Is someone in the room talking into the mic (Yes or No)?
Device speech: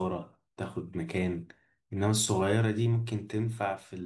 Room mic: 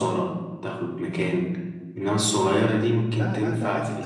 Yes